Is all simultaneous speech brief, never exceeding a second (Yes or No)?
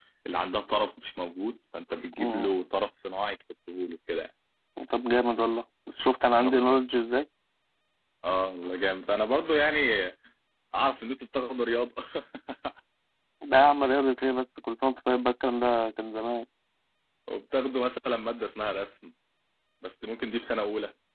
Yes